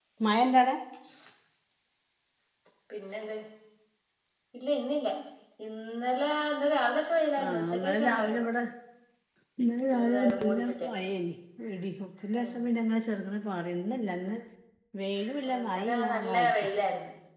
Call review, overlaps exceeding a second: present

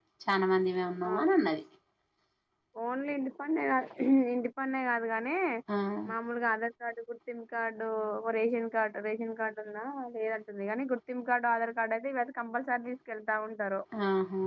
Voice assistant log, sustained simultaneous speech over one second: none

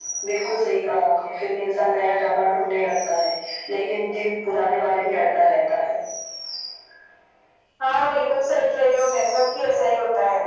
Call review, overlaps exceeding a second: none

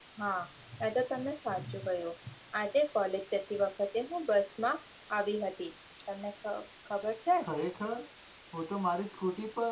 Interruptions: none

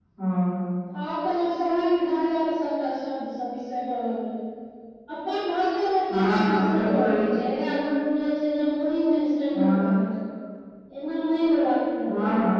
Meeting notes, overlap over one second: present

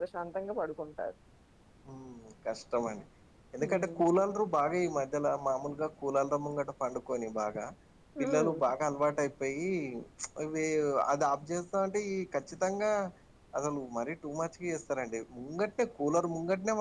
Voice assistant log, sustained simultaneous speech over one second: none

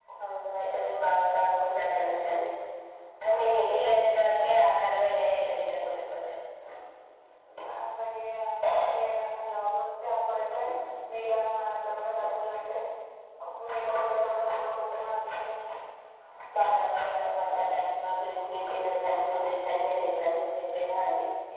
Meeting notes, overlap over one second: present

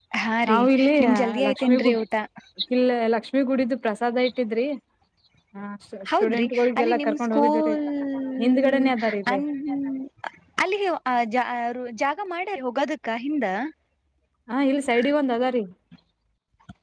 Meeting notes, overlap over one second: present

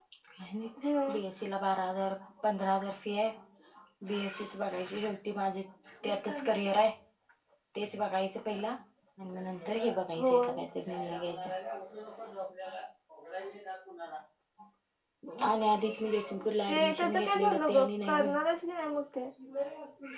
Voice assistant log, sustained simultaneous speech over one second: present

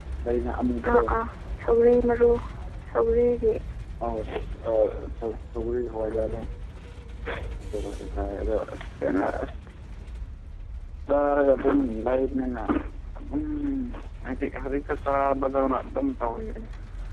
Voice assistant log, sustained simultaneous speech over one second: none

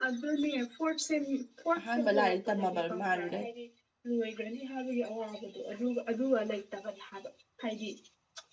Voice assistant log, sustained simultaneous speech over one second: present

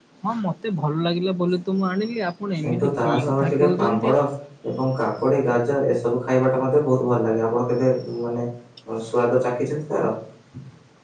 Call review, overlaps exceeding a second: present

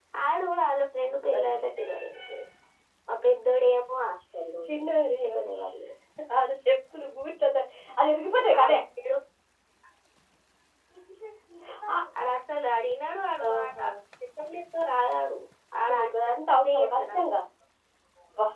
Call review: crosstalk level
present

